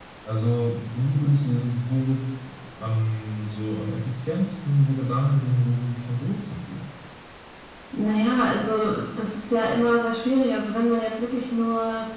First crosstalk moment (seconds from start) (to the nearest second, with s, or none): none